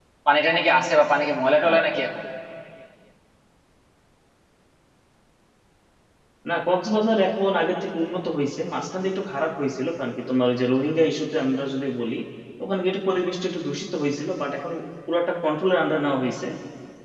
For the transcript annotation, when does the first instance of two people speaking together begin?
none

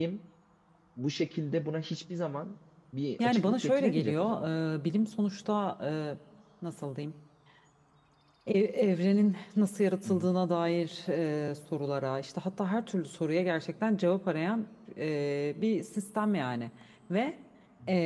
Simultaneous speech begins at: 3.2 s

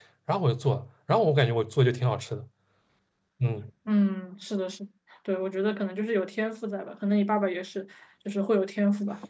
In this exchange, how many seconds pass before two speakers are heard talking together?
none

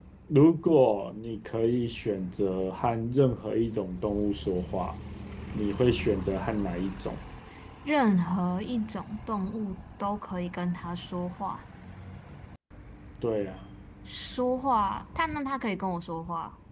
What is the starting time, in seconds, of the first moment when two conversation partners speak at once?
none

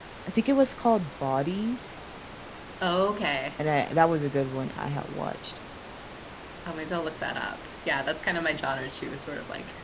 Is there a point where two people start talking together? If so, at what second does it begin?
none

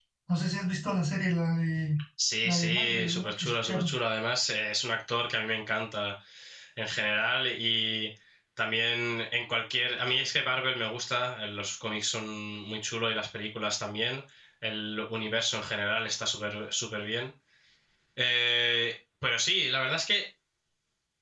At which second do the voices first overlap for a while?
2.4 s

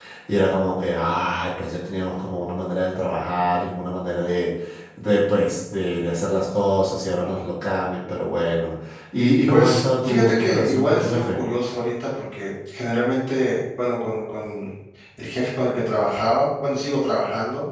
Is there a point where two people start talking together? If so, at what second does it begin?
9.5 s

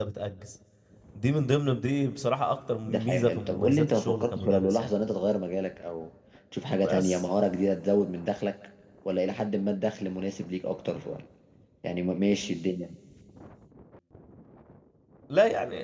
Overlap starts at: 2.9 s

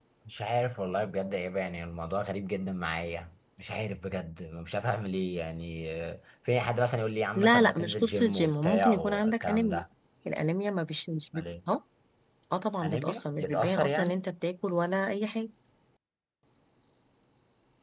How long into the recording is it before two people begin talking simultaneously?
7.3 s

